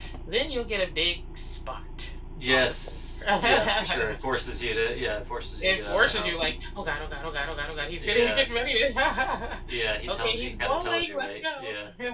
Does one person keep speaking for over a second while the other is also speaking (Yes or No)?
Yes